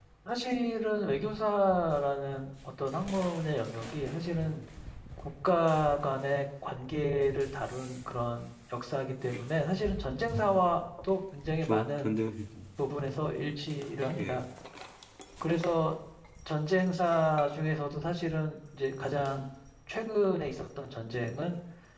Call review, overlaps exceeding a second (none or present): none